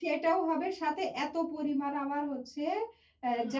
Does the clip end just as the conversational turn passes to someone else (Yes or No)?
No